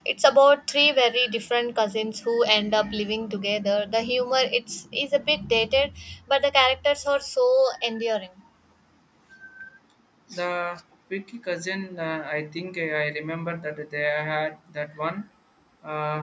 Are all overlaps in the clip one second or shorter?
Yes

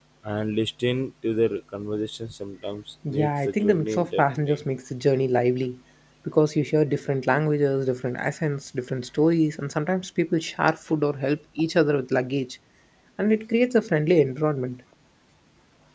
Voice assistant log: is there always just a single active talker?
No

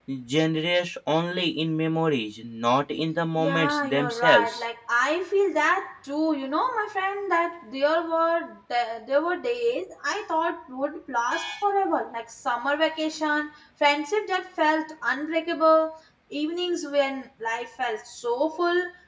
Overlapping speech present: Yes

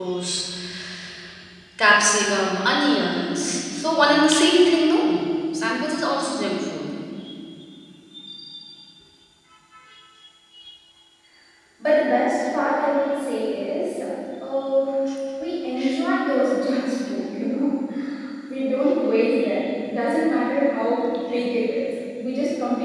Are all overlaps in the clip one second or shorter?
Yes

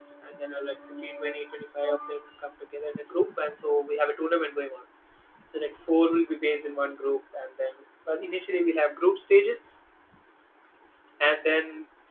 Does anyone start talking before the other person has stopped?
No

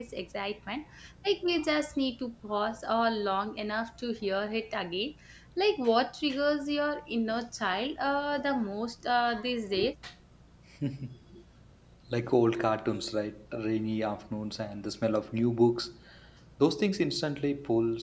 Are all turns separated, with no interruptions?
Yes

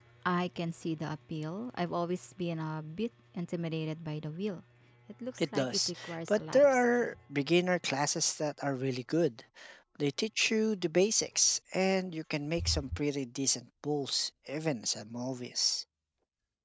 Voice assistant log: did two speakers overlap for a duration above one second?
Yes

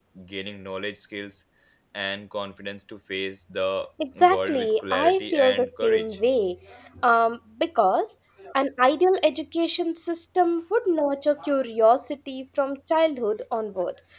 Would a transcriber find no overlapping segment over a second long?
No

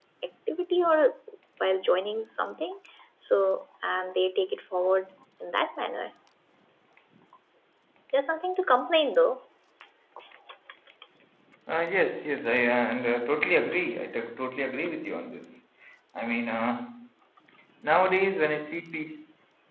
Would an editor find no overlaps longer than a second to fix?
Yes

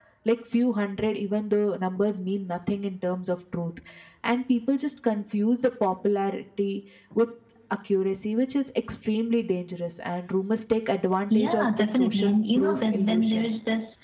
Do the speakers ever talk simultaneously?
Yes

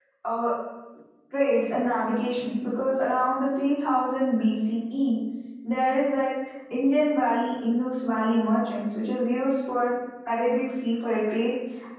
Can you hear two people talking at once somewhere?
No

